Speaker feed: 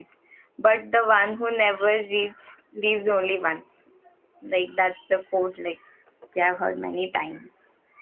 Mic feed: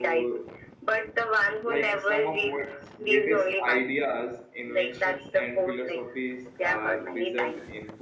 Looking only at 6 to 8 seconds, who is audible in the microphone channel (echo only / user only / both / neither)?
both